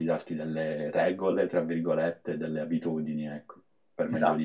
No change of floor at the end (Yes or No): No